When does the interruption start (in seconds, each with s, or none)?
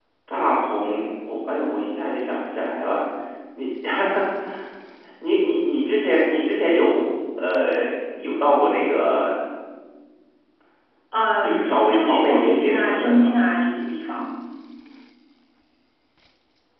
11.4 s